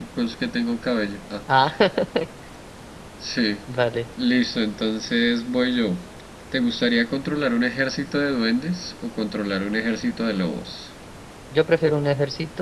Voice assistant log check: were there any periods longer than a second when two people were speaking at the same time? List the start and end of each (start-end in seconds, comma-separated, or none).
none